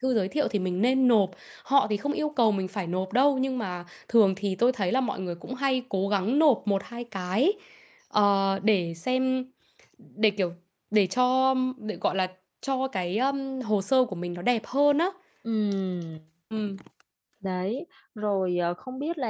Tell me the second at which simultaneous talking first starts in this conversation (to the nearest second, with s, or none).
none